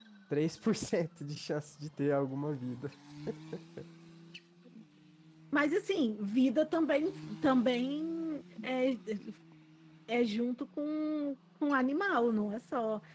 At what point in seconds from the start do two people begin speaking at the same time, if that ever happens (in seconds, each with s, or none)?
none